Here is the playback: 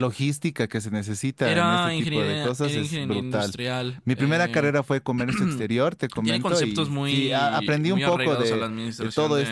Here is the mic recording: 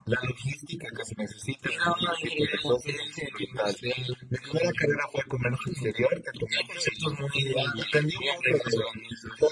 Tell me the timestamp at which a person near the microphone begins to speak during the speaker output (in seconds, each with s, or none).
none